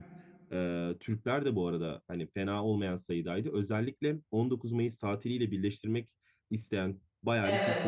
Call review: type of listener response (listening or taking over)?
listening